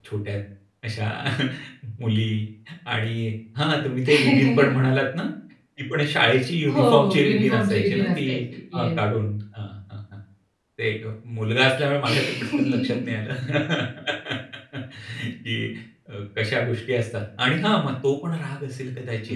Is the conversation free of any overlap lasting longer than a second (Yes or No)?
No